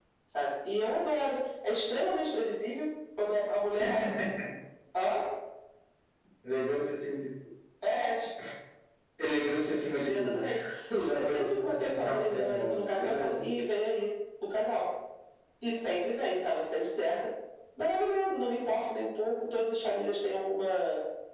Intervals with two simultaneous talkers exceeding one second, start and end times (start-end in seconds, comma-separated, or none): 11.1-13.4